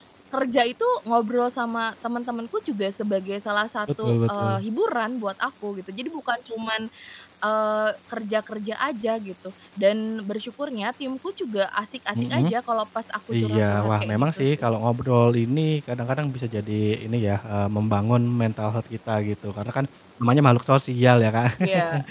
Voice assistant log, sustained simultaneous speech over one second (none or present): present